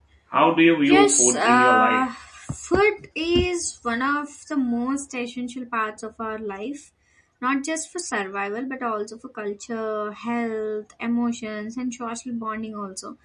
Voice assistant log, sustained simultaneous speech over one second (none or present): present